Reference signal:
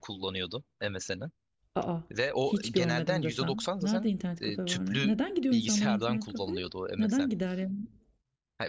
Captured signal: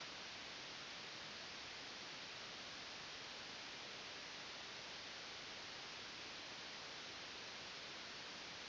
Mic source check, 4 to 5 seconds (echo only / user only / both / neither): neither